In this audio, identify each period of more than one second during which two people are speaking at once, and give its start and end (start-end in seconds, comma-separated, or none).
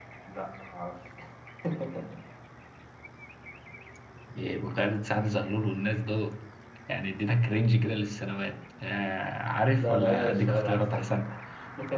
9.8-11.3